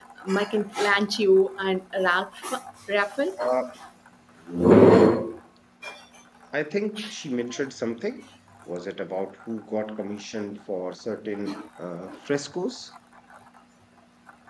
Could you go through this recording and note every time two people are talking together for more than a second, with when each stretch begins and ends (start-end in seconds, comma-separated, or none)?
none